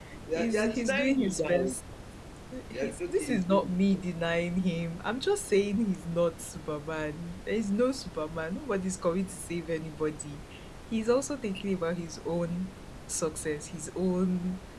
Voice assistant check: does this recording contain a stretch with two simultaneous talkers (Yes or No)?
Yes